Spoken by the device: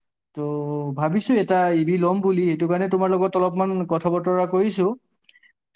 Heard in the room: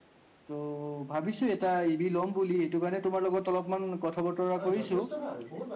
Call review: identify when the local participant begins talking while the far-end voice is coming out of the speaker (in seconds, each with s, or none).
4.5 s